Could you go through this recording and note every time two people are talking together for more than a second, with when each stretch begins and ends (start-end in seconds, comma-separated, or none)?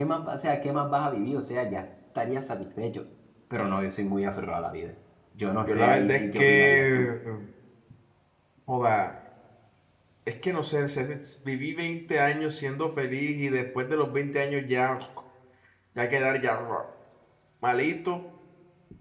5.6-7.1